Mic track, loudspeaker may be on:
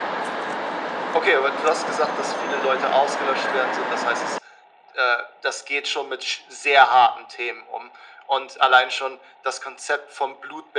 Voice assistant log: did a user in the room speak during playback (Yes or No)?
No